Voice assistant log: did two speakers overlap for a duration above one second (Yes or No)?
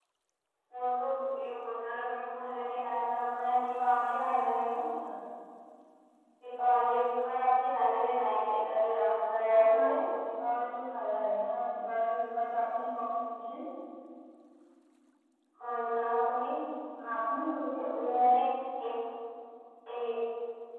No